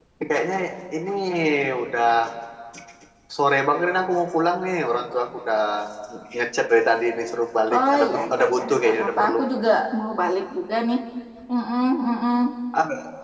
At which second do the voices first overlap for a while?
7.7 s

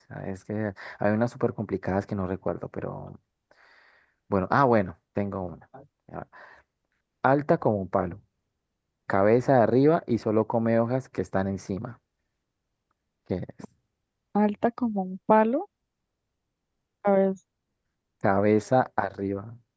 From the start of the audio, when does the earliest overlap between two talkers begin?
none

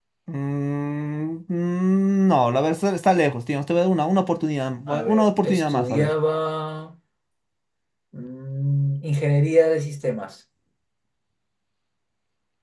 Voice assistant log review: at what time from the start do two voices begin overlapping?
4.9 s

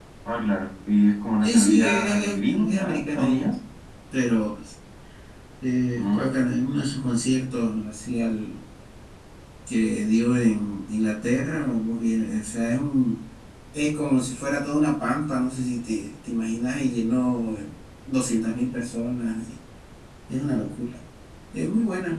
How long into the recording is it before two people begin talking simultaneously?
1.4 s

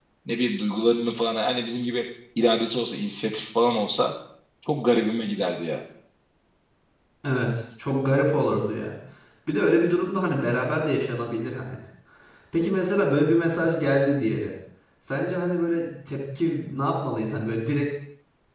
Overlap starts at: none

